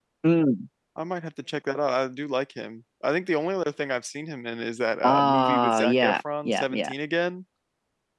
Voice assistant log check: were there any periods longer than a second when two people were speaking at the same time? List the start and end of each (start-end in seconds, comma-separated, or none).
5.0-6.9